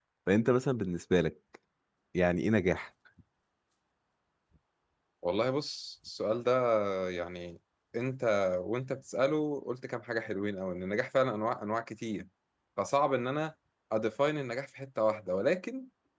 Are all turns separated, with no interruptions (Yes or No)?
Yes